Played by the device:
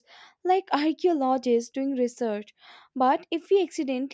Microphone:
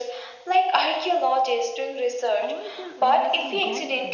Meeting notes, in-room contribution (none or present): present